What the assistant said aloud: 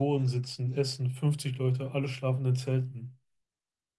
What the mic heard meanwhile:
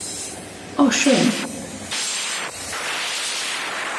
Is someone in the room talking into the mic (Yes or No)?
Yes